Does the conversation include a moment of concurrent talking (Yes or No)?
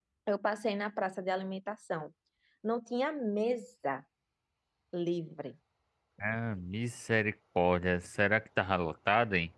No